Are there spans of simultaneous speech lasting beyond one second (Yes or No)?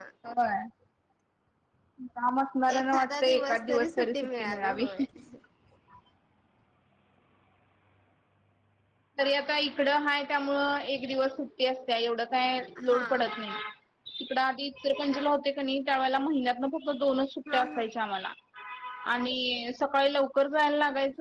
Yes